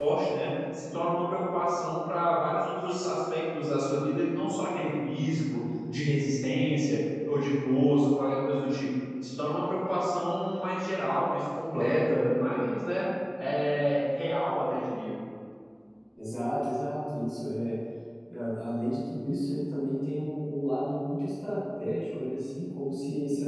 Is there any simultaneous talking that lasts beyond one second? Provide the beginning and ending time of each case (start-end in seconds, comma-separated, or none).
none